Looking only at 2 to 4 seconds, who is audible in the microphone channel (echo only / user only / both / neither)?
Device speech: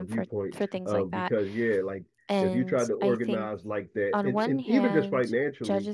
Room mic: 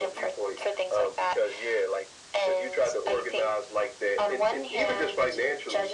echo only